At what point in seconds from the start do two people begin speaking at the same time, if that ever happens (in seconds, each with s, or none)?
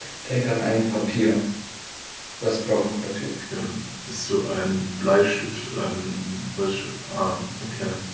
none